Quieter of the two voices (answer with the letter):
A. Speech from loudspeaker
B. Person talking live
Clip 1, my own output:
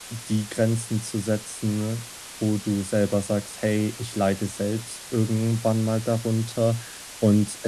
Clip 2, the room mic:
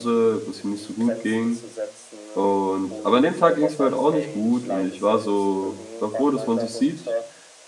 A